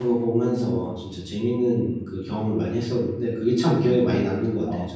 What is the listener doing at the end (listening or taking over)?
taking over